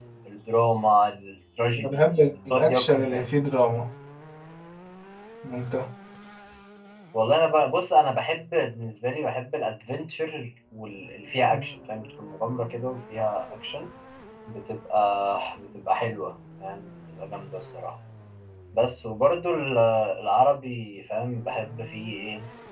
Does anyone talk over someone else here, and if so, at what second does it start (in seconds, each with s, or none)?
1.8 s